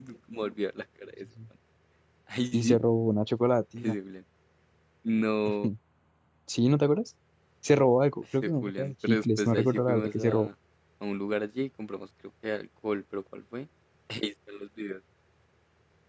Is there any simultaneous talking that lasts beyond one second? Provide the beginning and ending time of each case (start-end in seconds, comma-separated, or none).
8.4-10.5